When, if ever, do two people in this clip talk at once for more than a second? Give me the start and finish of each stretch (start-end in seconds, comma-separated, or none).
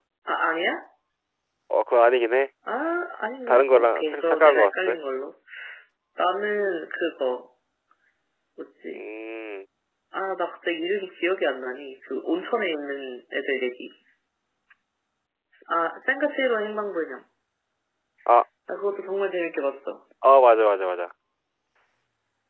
3.5-5.0